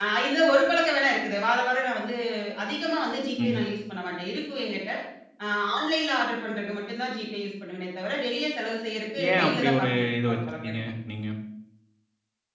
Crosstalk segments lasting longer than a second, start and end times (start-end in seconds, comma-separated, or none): 9.3-10.8